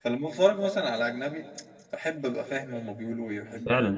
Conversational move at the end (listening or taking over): taking over